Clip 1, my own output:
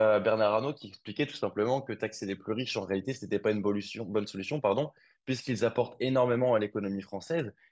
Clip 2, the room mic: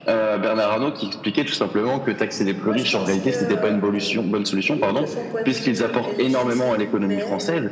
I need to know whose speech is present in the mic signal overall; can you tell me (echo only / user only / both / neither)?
both